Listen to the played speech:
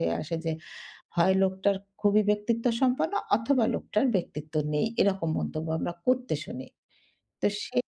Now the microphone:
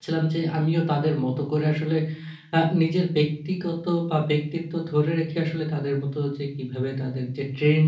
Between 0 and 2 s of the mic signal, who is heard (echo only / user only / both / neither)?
user only